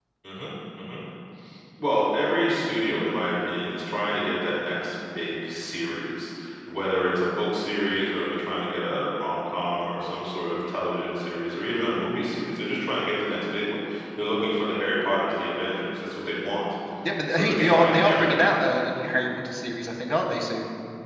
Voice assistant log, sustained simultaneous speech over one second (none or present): present